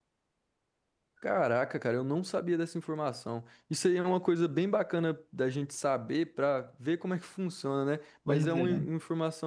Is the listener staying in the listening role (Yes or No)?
Yes